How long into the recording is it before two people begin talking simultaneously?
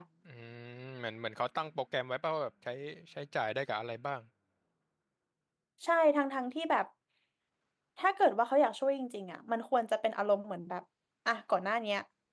none

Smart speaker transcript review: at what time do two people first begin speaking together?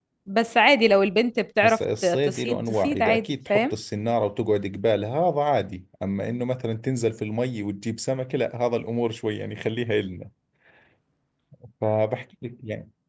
1.6 s

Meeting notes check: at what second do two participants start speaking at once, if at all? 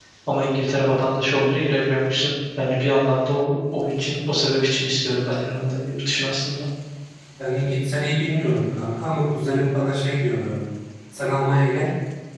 none

